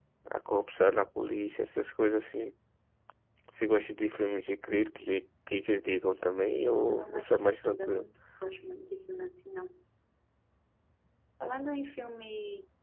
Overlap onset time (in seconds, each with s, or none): 6.5 s